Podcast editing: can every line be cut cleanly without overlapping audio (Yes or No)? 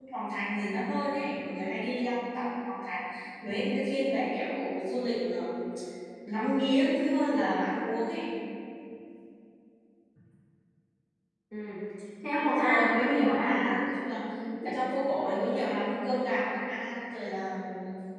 No